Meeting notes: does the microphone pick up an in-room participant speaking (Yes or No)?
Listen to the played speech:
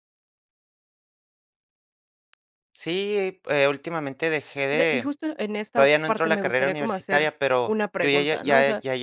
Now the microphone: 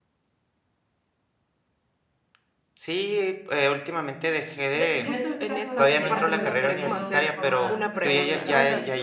Yes